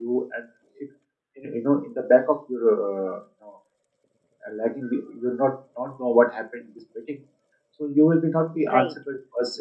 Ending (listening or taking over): listening